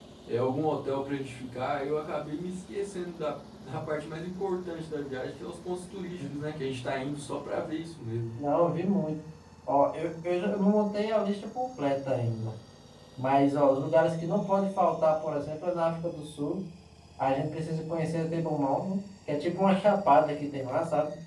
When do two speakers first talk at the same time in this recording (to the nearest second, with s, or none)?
none